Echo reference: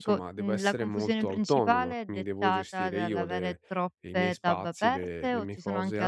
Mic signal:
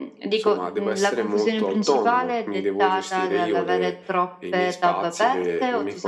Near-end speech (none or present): none